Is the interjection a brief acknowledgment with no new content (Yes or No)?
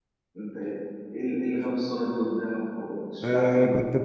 No